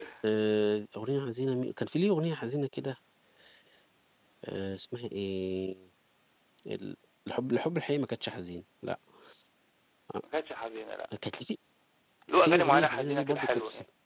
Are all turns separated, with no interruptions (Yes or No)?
No